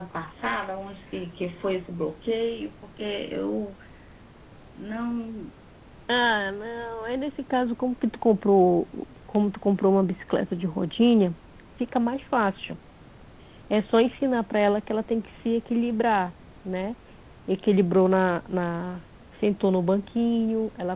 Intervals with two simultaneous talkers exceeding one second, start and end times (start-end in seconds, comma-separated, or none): none